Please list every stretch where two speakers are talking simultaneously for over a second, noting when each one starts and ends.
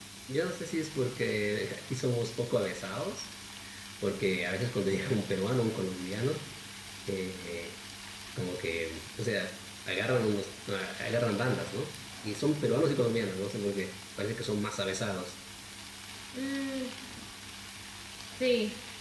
none

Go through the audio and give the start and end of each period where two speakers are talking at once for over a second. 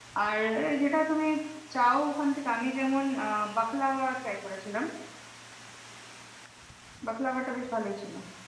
none

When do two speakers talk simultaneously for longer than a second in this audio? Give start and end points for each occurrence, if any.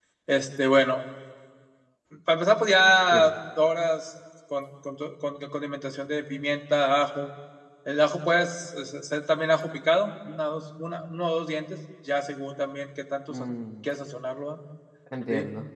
none

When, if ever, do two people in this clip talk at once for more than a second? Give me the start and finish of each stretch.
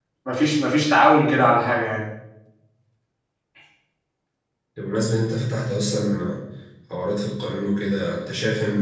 none

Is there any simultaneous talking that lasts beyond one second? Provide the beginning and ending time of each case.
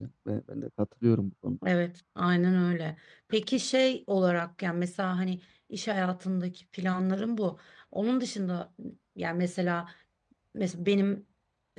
none

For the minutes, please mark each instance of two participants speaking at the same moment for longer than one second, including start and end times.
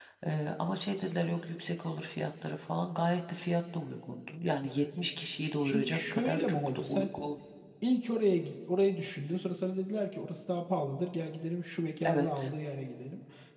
5.6-7.1

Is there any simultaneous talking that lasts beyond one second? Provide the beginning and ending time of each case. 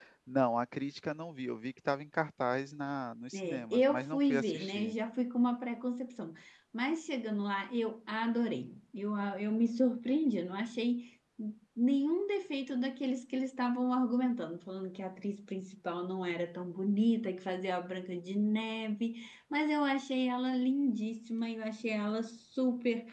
3.3-4.9

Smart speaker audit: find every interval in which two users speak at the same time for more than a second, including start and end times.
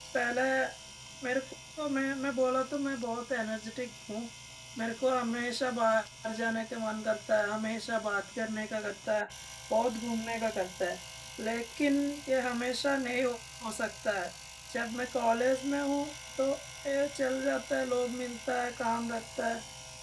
none

